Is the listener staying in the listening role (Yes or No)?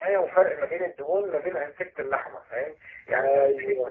Yes